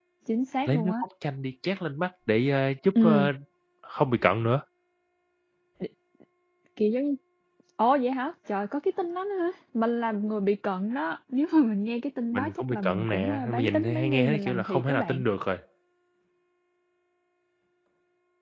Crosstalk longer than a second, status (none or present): present